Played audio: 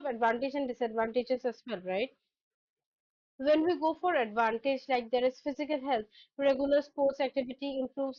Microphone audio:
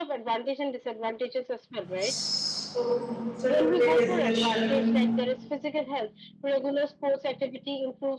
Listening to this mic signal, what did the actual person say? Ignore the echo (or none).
So it's a today discussion.